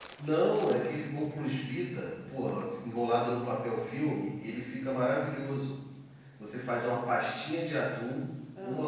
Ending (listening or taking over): listening